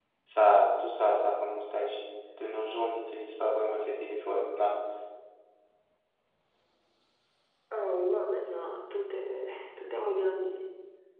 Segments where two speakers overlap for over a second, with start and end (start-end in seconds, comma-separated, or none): none